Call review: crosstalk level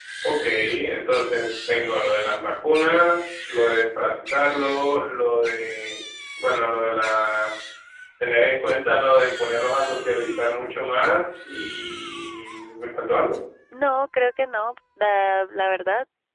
none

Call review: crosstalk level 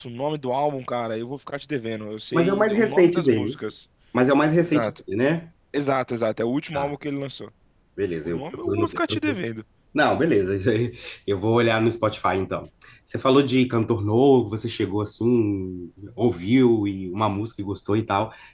present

